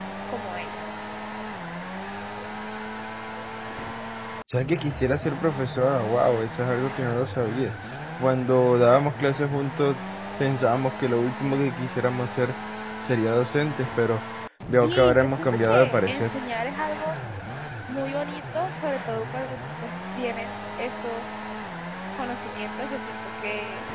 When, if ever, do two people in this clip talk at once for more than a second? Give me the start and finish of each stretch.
14.8-16.2

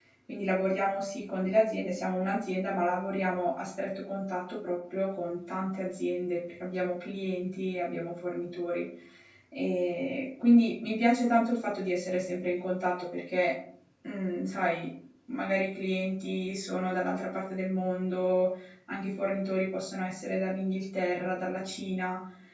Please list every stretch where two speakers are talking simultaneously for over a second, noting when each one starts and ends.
none

